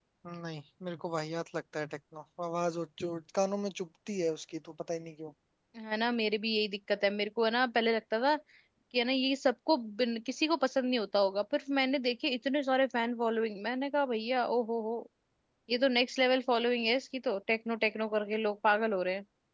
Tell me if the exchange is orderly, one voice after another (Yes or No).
Yes